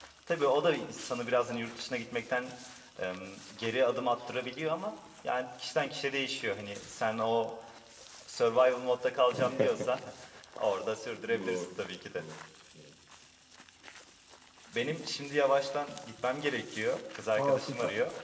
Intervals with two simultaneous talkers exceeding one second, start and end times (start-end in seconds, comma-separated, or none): none